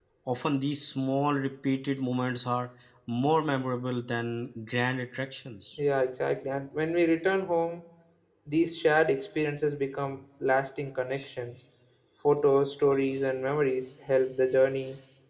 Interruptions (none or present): none